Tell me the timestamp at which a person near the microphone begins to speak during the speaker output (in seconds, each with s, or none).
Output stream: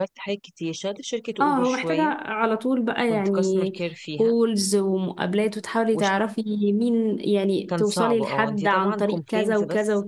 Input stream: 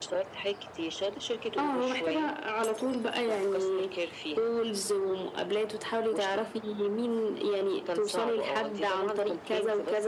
none